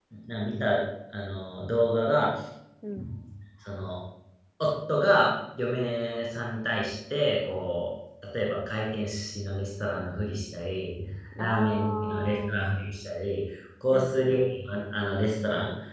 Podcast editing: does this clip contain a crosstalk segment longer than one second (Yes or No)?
Yes